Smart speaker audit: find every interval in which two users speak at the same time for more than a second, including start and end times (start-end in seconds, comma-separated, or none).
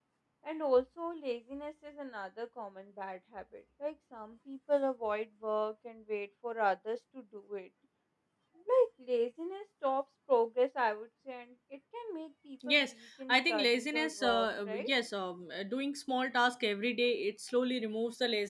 13.3-14.9